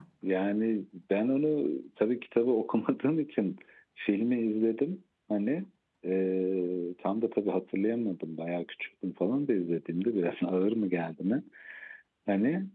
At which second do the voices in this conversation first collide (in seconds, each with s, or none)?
none